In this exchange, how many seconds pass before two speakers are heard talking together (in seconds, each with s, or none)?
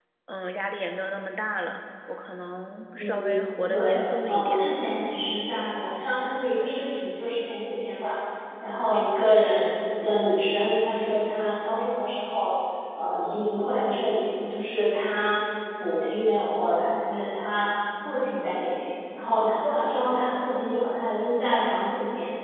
2.9 s